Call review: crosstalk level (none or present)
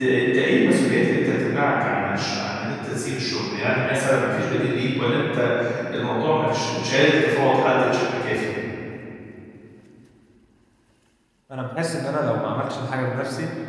none